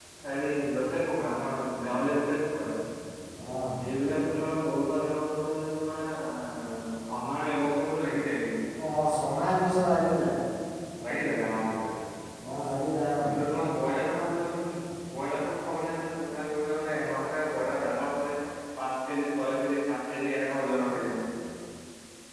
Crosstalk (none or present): none